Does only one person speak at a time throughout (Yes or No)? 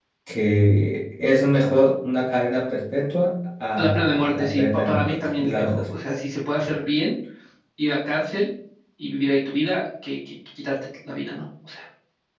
No